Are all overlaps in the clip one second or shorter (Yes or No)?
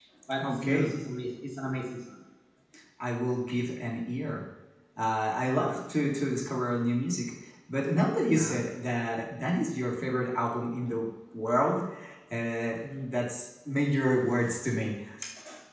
Yes